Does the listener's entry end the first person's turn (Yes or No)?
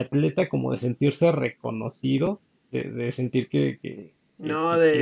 Yes